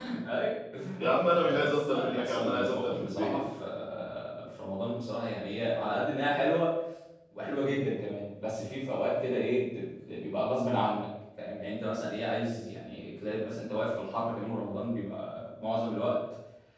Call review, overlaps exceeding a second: present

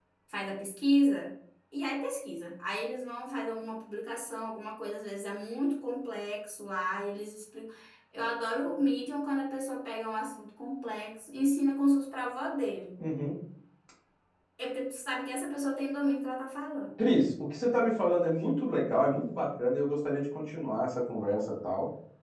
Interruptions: none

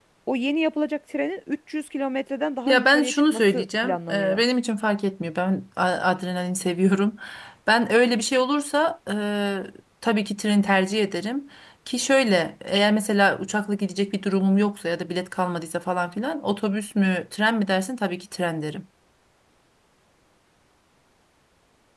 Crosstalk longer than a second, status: present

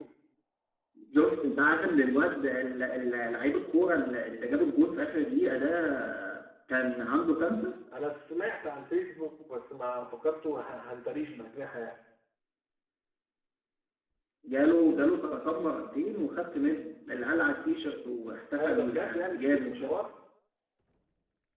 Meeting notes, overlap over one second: present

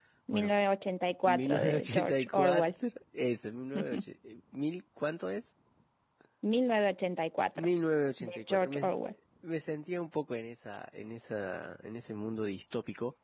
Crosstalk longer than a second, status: present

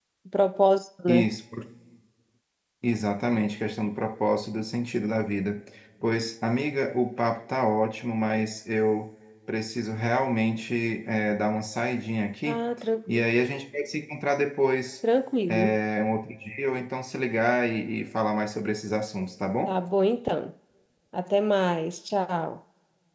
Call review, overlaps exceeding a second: none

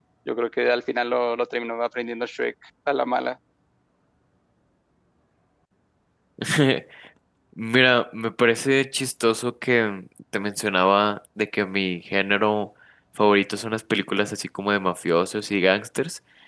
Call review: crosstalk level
none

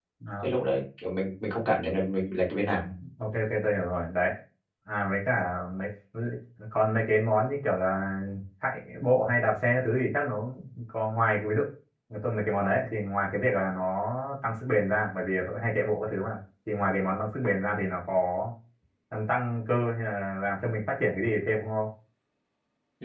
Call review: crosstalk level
none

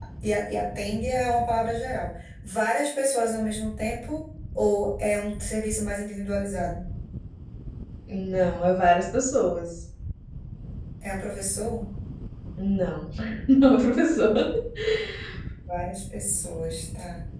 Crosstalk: none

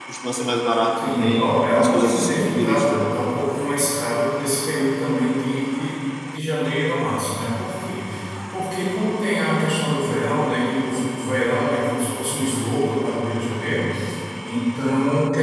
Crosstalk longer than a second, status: present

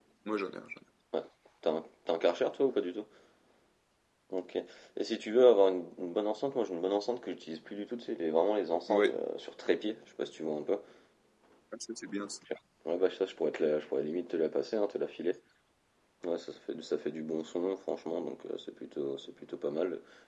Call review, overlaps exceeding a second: none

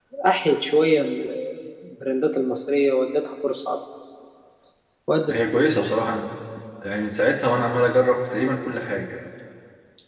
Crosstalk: none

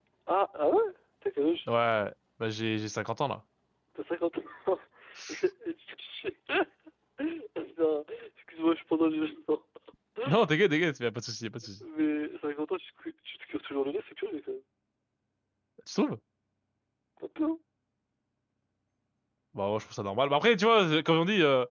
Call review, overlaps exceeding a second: none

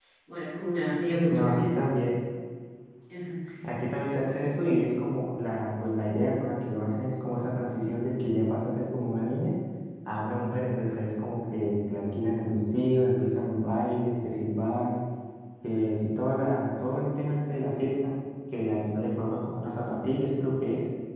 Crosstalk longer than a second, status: none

